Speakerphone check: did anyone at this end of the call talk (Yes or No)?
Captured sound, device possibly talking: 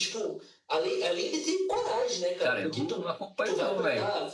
Yes